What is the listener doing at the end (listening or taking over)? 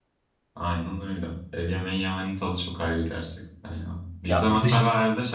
listening